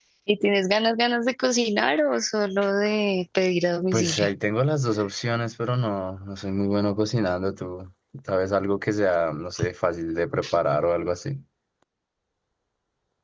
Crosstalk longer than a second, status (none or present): none